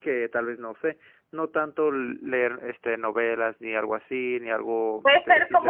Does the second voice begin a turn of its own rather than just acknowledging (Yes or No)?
Yes